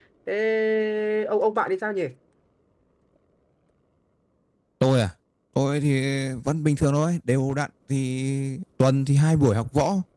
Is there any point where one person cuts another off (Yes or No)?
No